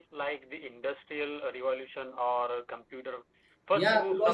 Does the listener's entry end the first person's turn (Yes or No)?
Yes